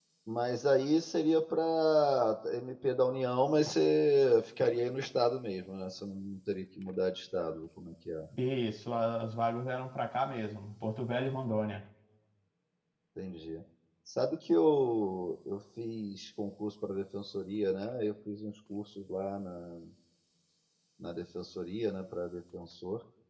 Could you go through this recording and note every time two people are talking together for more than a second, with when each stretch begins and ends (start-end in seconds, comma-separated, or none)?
none